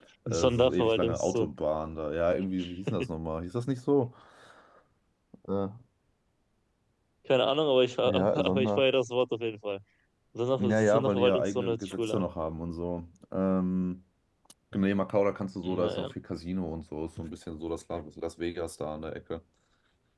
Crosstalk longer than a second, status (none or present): present